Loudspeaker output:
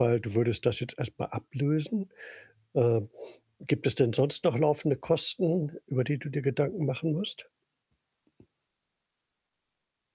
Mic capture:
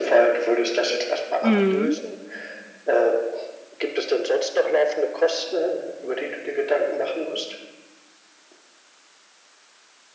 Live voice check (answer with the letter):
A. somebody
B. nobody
A